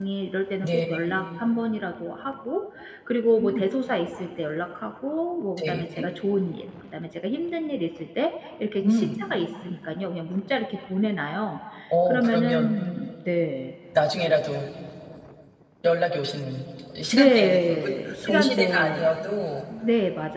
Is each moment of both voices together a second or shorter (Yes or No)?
No